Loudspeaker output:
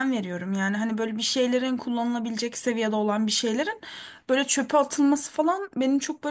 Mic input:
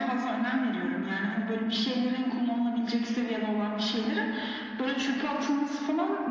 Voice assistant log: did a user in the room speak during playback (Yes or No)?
No